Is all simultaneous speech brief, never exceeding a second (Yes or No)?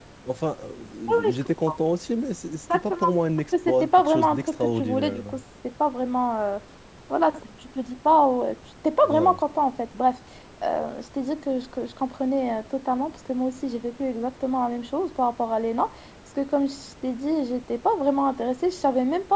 No